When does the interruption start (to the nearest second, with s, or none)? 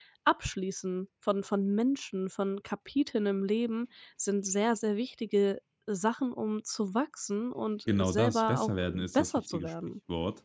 8 s